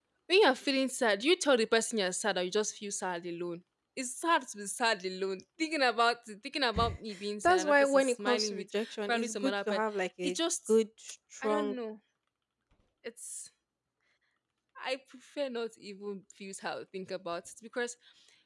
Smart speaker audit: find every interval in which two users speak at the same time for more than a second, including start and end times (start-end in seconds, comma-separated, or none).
7.4-9.8